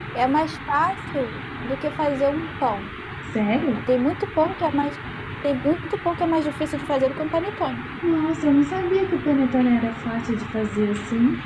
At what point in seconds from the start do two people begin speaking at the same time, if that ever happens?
none

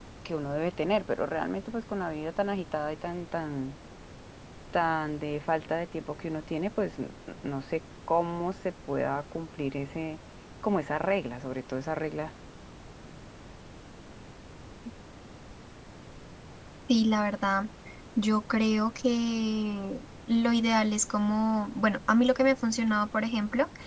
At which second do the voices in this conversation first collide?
none

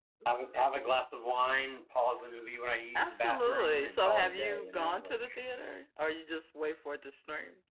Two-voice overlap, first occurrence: 2.9 s

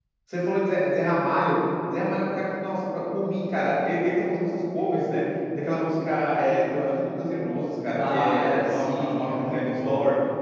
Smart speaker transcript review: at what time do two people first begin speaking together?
8.0 s

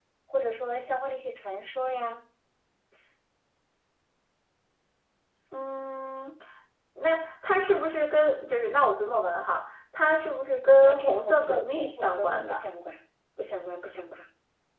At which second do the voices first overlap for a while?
10.8 s

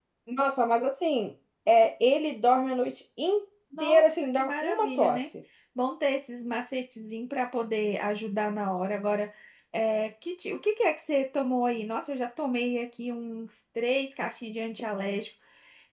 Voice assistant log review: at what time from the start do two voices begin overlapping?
3.7 s

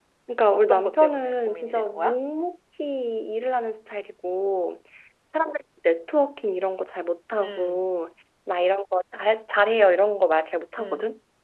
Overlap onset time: 0.5 s

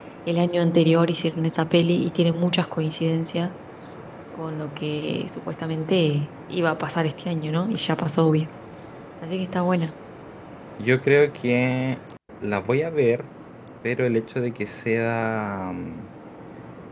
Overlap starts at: none

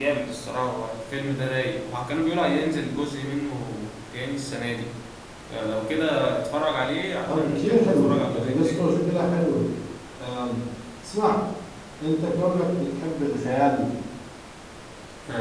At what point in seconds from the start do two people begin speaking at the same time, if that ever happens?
7.3 s

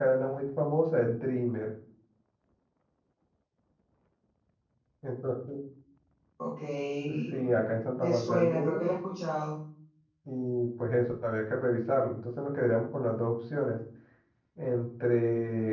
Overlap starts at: 7.3 s

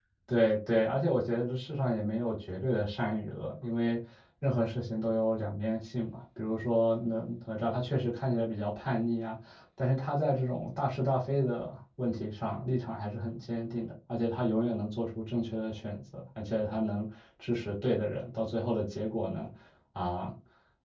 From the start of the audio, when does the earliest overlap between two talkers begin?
none

